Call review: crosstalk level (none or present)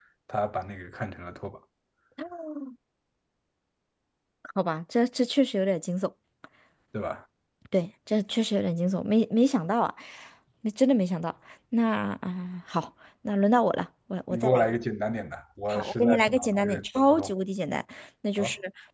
present